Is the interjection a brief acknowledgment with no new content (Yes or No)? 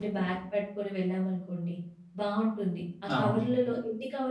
Yes